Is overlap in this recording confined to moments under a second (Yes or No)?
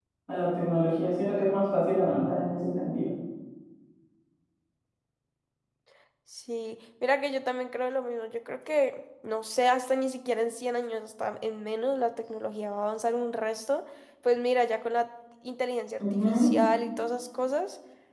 Yes